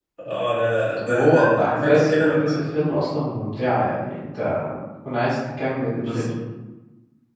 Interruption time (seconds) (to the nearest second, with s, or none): 1 s